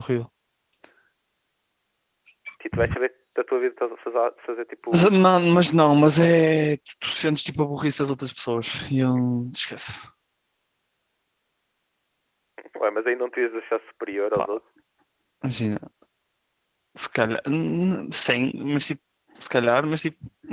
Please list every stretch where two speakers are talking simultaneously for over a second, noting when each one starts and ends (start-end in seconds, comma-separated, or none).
none